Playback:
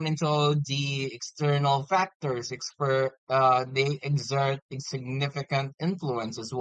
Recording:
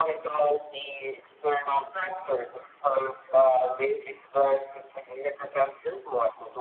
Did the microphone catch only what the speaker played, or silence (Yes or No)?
Yes